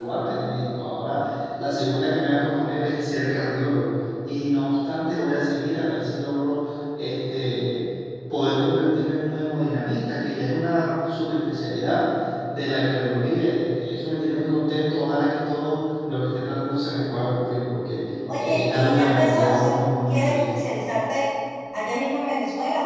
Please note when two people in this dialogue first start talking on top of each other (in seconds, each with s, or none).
18.4 s